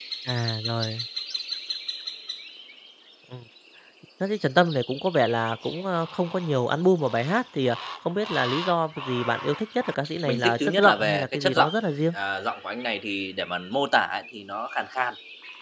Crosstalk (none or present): present